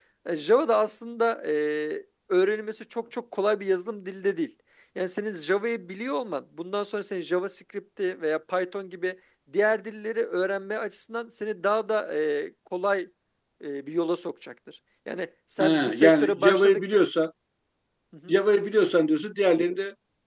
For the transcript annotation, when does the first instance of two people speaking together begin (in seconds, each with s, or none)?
15.6 s